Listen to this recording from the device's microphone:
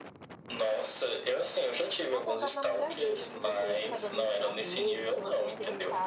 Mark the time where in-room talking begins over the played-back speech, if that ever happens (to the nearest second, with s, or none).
2 s